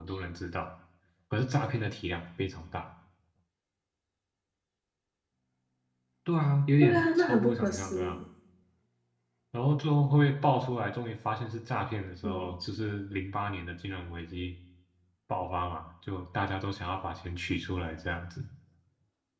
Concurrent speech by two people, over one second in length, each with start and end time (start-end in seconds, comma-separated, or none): 6.8-8.2